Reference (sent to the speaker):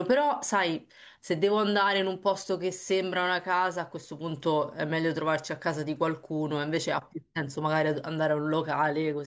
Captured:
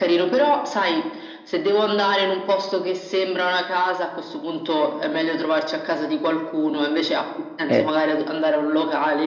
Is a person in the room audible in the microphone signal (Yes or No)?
Yes